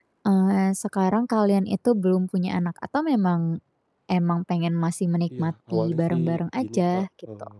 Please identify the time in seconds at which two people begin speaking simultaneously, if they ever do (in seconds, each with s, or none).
5.3 s